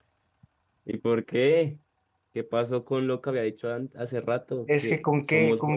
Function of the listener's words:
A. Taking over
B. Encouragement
A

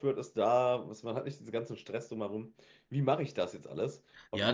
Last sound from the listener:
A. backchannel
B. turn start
B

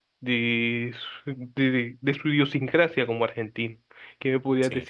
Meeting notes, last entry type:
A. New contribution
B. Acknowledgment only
B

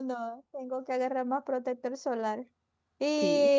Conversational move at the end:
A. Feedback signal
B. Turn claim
A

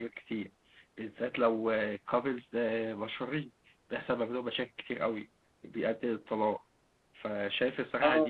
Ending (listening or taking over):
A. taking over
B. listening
B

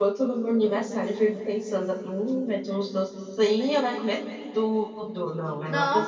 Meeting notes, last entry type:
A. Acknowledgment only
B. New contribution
B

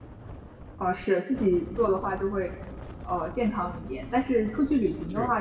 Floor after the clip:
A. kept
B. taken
A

